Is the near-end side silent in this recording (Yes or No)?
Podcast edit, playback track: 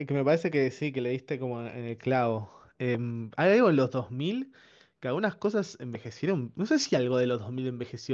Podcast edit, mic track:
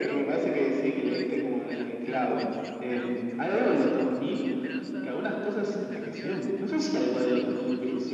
No